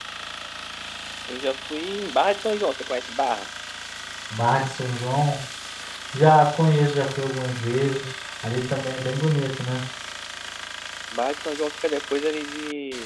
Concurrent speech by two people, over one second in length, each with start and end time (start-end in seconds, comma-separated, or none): none